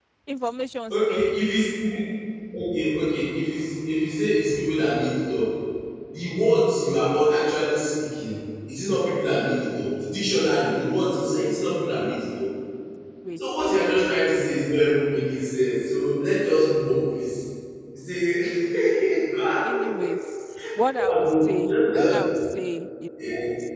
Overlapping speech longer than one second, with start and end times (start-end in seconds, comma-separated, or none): 21.0-22.2